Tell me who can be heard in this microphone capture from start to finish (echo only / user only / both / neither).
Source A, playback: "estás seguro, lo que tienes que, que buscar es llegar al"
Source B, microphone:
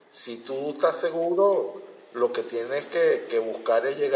echo only